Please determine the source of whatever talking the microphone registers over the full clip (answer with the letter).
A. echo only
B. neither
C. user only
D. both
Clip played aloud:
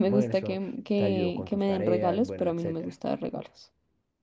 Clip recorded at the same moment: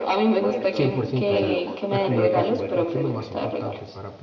D